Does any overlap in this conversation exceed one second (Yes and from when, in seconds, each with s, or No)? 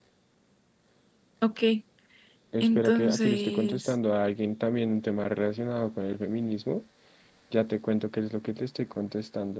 Yes, from 2.6 s